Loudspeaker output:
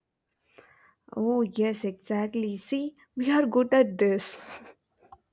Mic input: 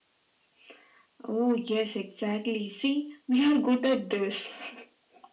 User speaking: No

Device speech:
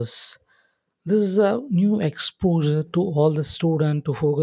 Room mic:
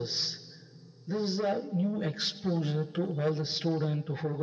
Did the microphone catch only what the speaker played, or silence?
Yes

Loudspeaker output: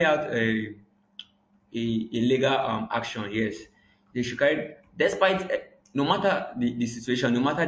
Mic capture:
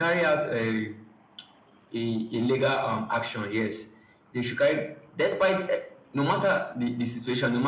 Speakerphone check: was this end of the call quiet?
Yes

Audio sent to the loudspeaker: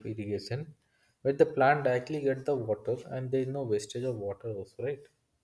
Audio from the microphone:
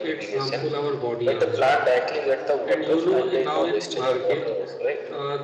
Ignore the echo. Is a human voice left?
Yes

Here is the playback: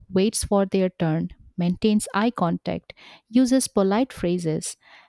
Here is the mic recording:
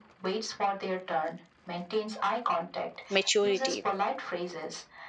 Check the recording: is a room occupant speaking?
Yes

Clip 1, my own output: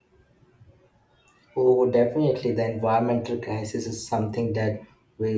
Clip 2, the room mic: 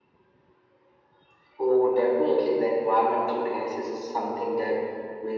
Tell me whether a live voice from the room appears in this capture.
No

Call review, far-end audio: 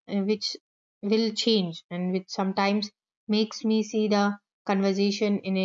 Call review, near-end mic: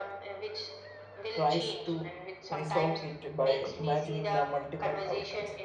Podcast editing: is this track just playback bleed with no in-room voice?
No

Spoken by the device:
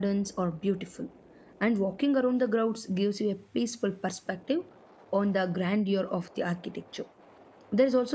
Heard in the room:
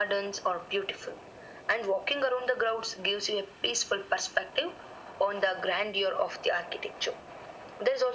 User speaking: No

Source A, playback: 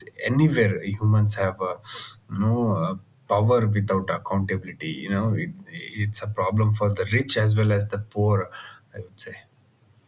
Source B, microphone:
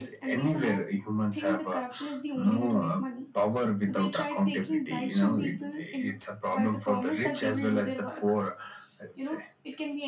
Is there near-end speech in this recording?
Yes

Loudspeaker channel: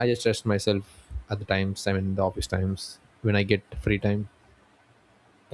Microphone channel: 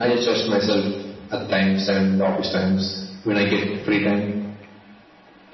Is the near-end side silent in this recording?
Yes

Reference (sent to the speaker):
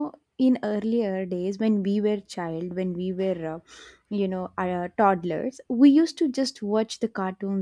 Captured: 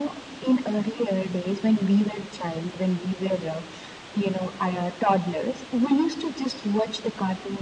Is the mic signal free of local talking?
Yes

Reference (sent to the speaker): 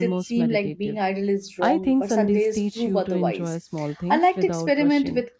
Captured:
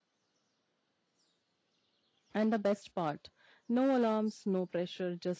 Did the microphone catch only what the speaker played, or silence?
No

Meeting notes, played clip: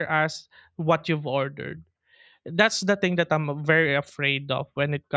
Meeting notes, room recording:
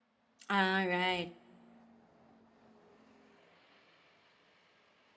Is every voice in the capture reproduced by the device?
No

